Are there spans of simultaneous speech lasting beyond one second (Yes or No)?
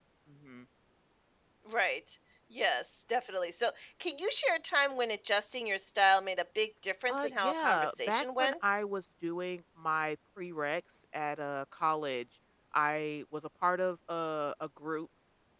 Yes